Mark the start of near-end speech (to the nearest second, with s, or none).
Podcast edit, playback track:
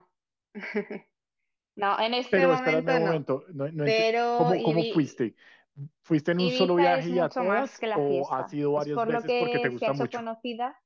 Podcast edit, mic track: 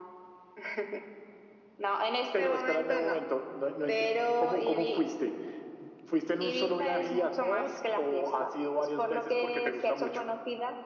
none